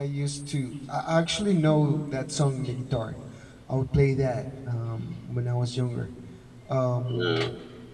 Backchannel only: Yes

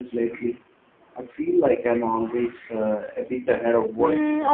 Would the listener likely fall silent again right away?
No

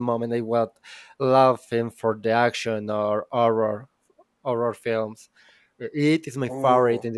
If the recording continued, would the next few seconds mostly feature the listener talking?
No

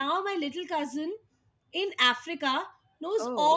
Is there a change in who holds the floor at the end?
No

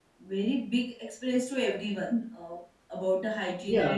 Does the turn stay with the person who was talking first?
No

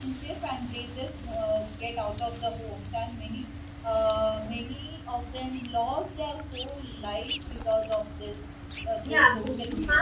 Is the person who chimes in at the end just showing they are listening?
No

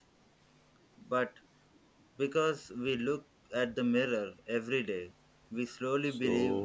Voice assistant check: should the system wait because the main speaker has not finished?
No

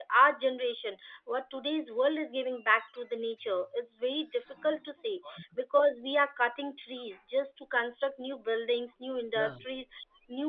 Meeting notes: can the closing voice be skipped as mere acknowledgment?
Yes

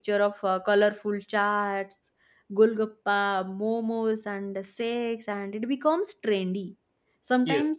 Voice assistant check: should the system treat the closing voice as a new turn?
No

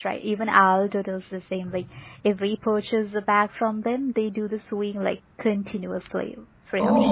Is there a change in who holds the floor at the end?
Yes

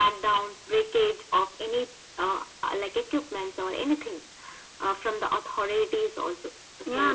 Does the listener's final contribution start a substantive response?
Yes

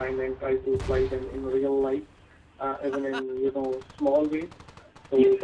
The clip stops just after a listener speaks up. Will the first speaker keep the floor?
Yes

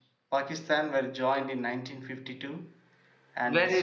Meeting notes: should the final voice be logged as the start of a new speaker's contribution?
Yes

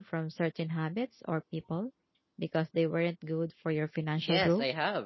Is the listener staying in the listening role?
No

